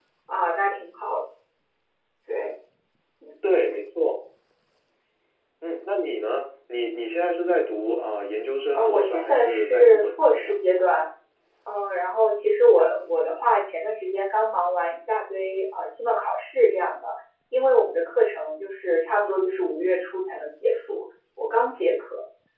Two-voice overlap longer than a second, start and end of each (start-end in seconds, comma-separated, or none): 8.7-10.5